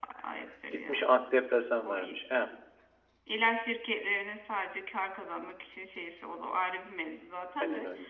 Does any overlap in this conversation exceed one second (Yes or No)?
No